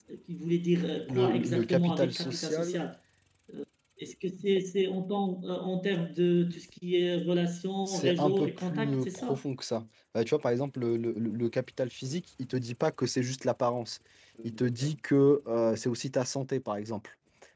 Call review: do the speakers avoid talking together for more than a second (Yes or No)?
No